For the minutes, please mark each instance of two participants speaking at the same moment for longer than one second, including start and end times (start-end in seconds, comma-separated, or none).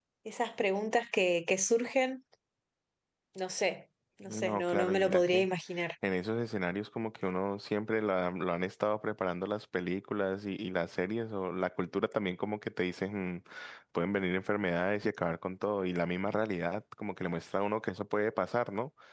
4.3-5.5